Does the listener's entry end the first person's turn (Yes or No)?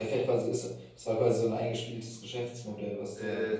Yes